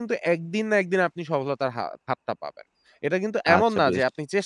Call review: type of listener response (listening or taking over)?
listening